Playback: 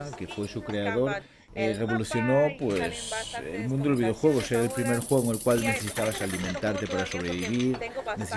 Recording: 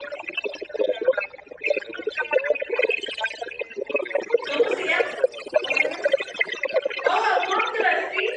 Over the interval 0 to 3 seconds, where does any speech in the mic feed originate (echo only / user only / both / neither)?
echo only